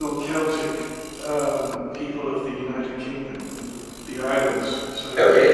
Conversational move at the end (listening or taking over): taking over